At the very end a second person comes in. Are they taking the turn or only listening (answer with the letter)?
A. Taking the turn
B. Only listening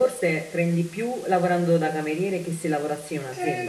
A